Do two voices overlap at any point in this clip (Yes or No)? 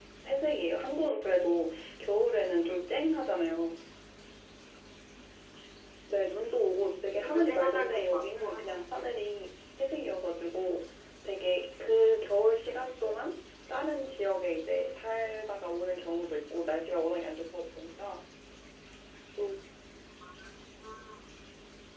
Yes